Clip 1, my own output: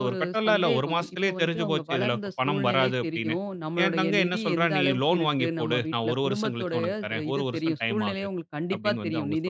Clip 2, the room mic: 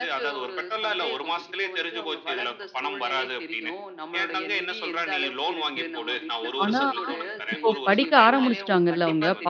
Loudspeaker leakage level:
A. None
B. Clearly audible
B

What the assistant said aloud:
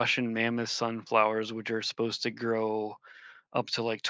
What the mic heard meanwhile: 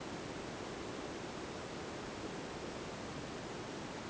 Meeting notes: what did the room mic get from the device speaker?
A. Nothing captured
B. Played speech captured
A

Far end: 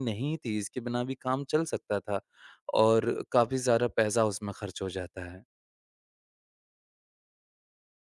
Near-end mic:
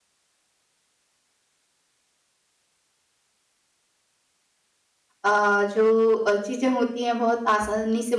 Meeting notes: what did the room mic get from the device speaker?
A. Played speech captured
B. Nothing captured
B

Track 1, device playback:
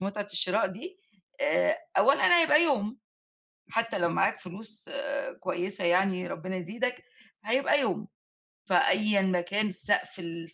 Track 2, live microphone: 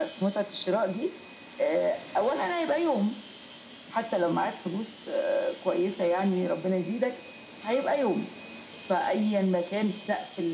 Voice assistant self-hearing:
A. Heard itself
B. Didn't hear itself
A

